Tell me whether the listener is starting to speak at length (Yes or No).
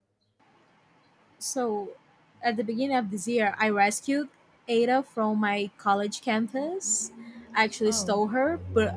No